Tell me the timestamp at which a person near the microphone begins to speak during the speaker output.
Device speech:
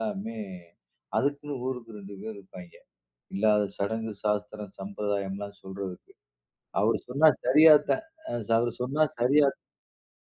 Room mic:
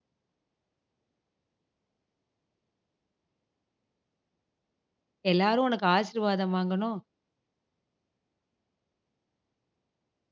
5 s

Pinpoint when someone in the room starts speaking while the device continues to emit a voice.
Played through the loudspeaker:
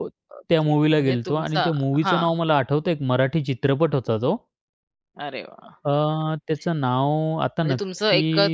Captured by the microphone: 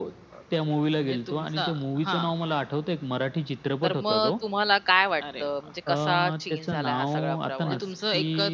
4 s

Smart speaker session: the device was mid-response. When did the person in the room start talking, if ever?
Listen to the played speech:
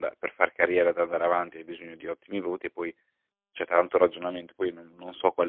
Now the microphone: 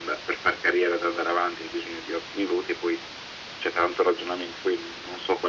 none

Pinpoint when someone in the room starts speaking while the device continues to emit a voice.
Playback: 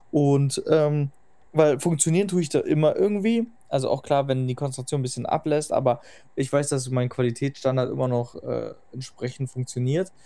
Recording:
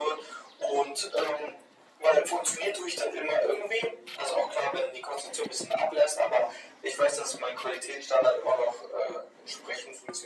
none

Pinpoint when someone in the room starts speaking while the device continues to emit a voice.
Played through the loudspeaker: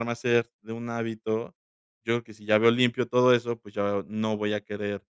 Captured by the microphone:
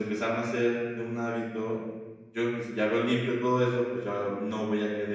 none

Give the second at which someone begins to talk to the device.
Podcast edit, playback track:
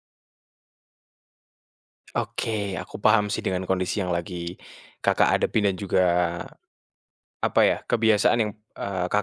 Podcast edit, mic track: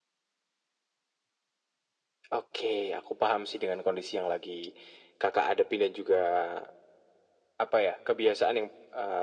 none

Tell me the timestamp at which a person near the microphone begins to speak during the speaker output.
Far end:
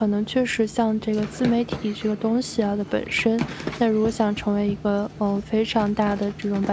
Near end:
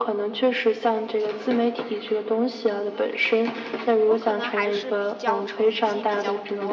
4 s

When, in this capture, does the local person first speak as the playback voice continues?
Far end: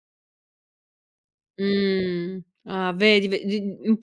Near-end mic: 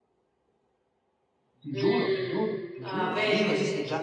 2 s

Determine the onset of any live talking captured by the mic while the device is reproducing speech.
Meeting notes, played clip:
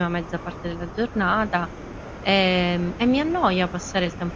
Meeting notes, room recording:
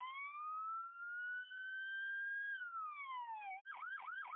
none

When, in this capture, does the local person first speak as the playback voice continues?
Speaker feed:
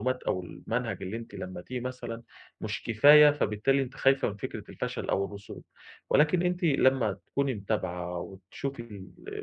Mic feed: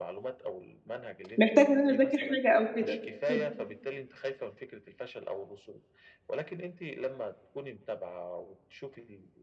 1 s

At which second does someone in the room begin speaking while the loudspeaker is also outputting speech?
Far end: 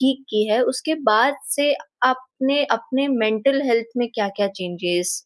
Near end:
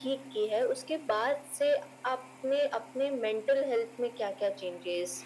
none

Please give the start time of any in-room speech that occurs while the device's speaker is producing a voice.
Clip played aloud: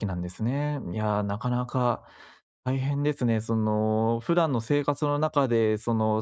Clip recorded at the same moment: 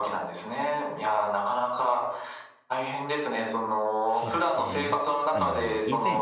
4 s

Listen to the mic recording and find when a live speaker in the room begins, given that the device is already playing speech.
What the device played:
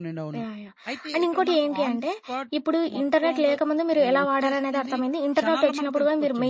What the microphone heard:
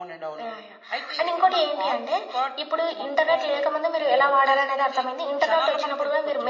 none

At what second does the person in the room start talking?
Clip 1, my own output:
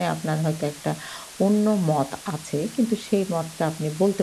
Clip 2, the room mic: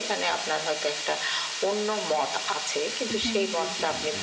3 s

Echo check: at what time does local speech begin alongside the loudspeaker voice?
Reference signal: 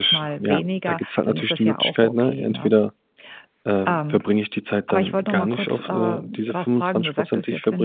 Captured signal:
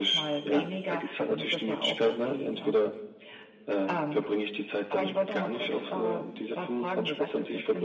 none

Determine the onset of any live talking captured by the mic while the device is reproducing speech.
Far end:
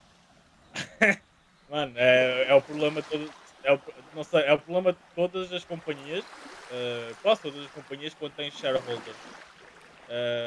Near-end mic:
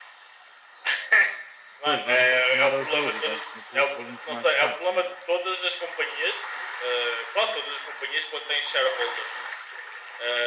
2 s

